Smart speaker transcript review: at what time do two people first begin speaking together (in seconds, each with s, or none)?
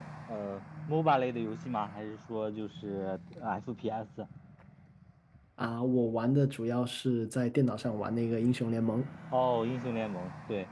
none